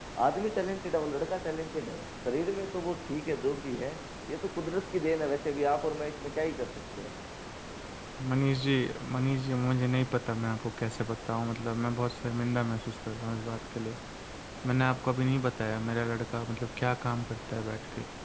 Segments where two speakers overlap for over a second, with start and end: none

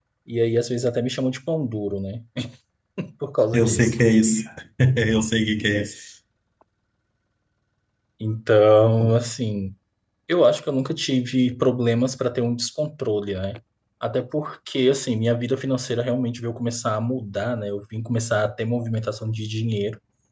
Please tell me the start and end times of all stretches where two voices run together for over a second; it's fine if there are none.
none

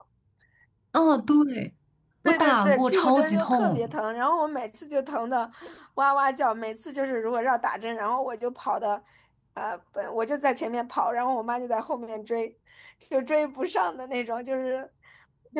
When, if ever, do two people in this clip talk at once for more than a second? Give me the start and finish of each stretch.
2.2-4.0

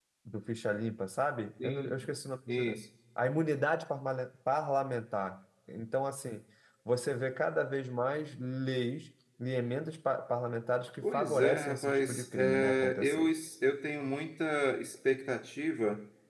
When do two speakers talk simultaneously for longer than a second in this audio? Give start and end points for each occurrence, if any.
11.0-13.3

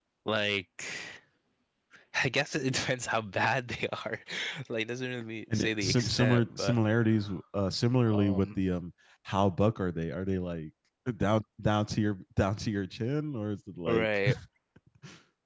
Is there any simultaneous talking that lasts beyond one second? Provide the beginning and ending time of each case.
5.5-6.8

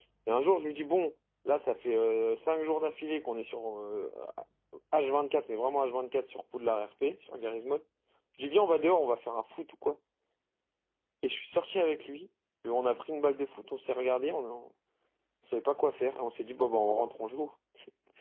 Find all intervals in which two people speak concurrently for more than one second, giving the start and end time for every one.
none

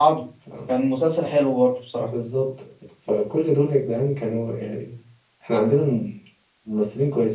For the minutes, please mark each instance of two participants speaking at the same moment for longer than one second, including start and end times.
none

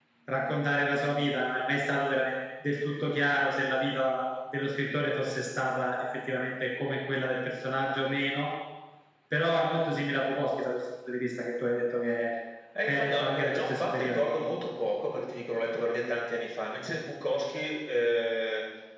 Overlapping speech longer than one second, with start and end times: 12.9-14.3

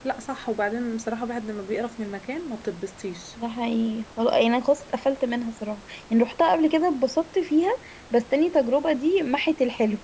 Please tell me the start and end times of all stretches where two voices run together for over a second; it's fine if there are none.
none

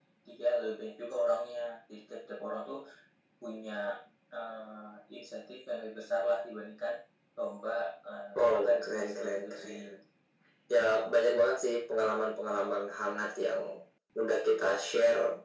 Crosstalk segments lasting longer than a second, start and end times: 8.4-9.8

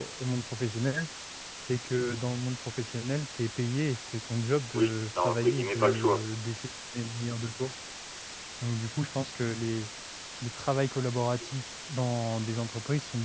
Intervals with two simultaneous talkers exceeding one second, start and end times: 4.7-6.2

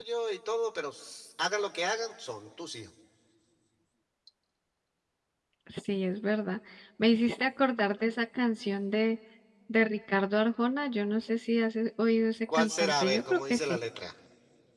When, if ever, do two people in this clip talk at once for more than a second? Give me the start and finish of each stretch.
12.5-13.8

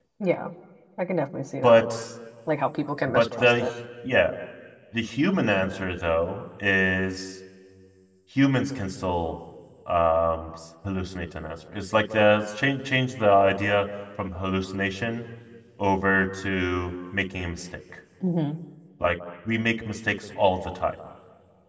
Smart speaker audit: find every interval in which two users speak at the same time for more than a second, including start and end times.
none

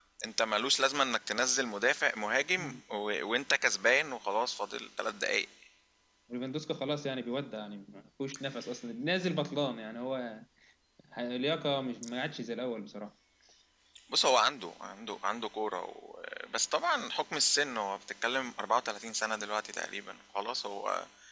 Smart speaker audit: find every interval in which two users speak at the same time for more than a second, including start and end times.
none

